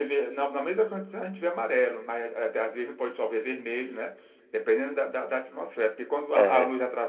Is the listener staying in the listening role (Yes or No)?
Yes